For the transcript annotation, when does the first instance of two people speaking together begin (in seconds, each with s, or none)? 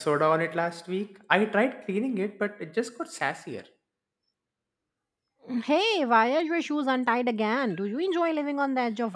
none